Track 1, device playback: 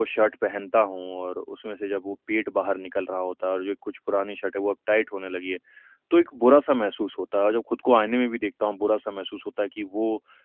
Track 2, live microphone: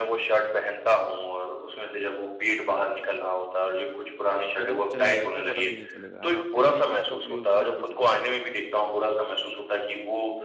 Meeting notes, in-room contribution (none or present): present